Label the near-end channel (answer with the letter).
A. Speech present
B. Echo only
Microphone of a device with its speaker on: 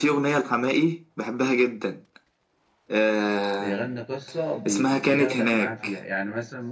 A